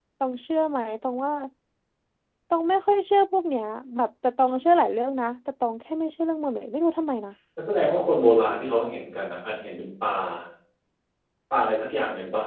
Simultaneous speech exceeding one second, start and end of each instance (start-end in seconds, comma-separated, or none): none